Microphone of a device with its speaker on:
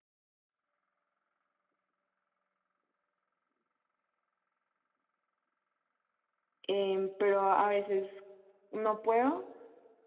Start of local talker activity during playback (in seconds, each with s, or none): 6.6 s